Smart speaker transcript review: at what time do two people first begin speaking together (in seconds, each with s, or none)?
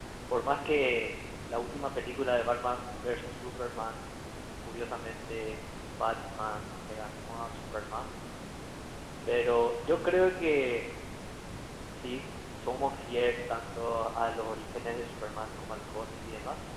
none